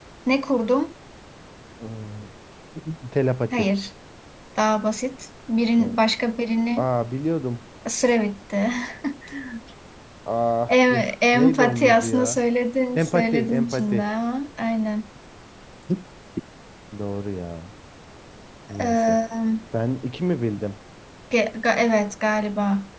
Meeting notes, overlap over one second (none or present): present